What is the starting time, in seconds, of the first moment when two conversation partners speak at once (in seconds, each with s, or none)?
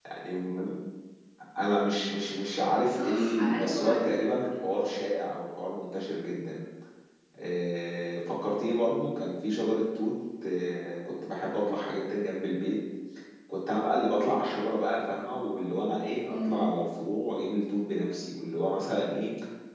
2.9 s